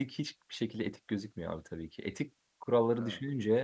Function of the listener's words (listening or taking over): listening